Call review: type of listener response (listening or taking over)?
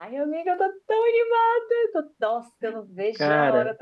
listening